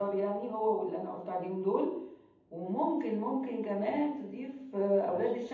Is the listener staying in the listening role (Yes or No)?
Yes